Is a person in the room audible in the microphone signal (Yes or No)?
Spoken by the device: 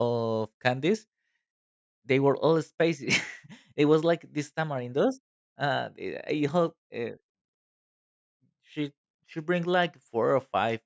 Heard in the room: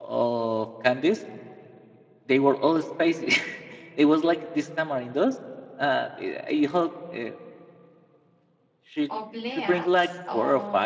Yes